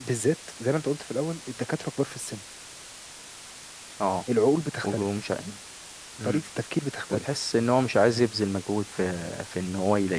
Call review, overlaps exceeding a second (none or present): none